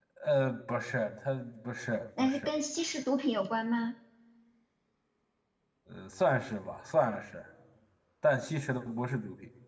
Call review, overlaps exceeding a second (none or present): none